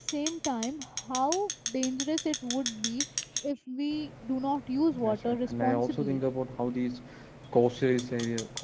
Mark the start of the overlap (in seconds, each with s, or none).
4.9 s